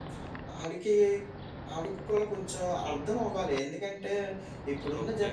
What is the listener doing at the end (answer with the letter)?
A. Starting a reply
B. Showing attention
B